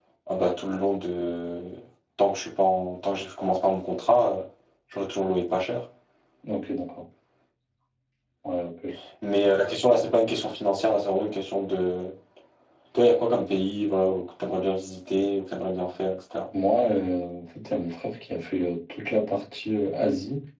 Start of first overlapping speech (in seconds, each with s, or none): none